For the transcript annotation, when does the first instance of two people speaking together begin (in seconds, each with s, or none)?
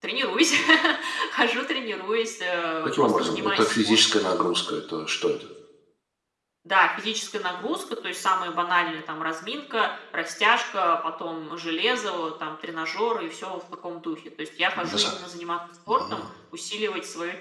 2.8 s